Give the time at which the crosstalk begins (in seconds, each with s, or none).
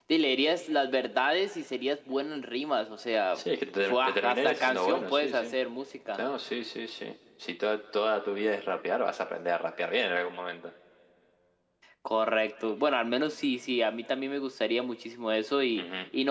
3.9 s